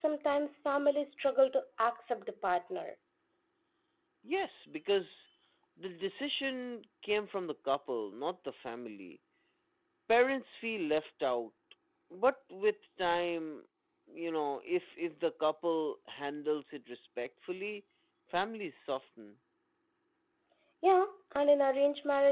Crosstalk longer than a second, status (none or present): none